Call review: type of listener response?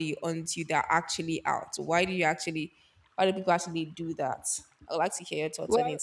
taking over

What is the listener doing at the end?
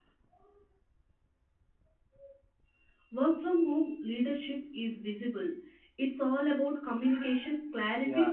taking over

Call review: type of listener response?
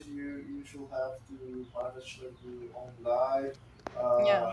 listening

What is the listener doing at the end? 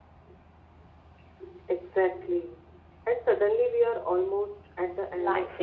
taking over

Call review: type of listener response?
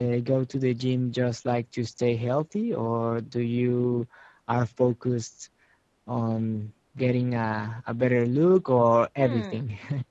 taking over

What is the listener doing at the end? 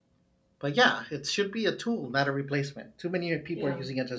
taking over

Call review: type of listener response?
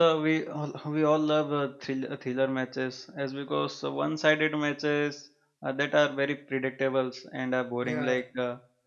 listening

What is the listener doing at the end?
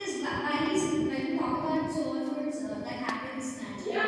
taking over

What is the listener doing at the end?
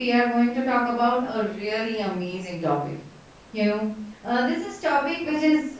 listening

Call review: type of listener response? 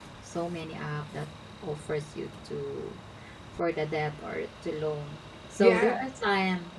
listening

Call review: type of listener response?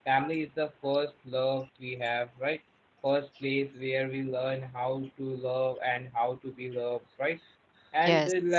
listening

